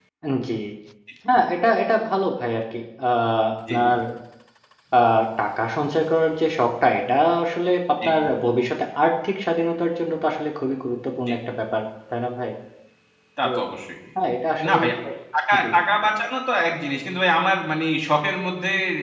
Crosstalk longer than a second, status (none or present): none